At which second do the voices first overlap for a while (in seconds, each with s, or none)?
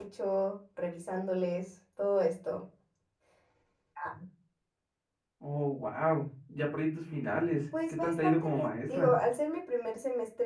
7.7 s